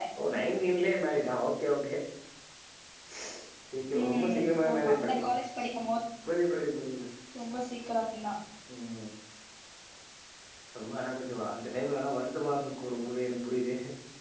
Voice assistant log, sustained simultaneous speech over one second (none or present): present